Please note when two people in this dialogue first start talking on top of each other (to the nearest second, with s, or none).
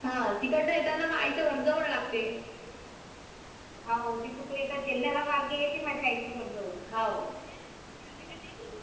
none